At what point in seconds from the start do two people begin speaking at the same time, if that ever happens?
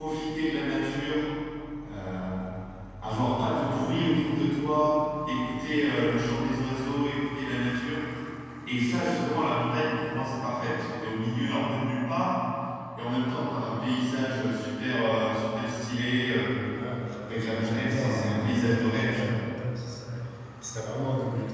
17 s

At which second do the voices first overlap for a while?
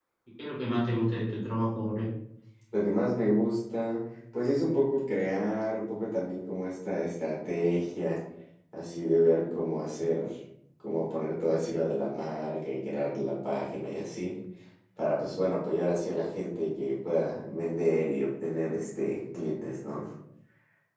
none

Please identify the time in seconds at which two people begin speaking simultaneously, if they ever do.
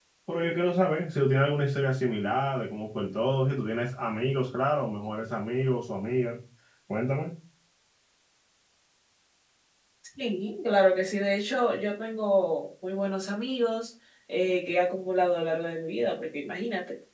none

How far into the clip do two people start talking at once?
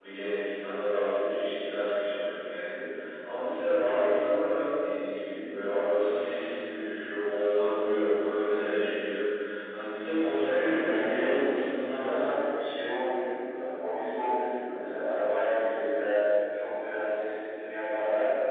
10 s

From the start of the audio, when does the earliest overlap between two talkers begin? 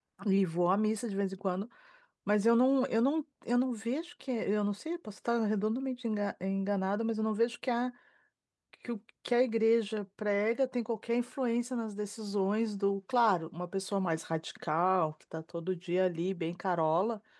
none

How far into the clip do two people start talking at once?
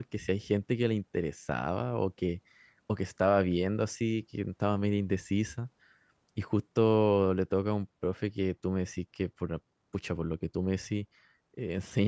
none

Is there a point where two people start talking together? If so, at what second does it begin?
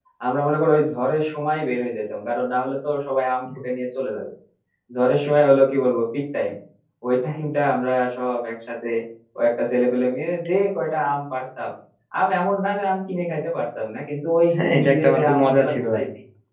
15 s

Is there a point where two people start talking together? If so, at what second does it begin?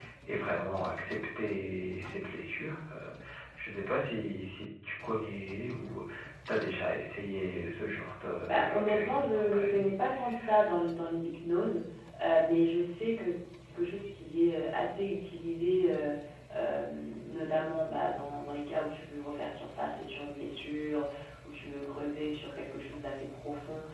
8 s

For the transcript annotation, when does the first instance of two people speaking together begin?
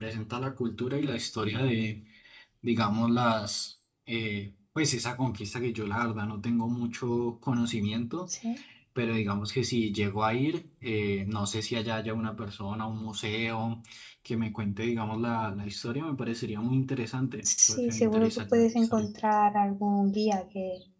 17 s

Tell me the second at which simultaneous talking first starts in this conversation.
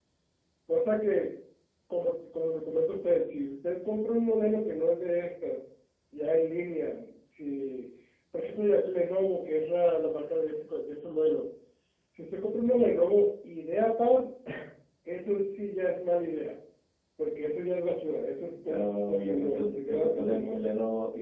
19 s

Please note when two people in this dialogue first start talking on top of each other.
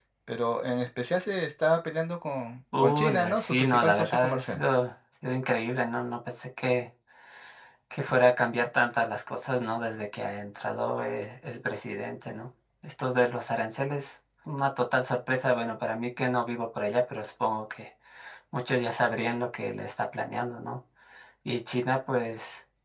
3 s

